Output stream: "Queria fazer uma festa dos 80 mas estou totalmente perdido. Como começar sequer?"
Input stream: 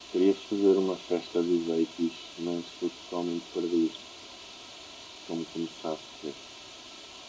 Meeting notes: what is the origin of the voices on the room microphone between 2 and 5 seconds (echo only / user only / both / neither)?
echo only